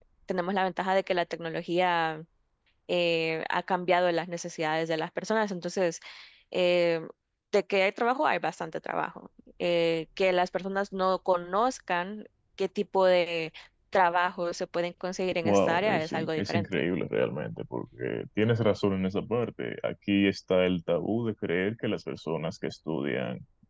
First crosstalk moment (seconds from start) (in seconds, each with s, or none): 15.4 s